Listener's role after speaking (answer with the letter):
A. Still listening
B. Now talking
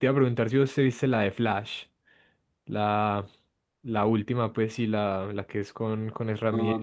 B